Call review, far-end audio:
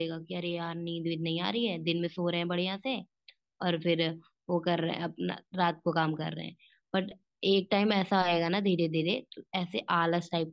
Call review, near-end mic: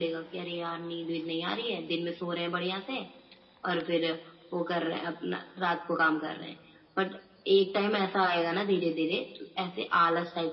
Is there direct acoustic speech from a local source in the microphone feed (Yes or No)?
No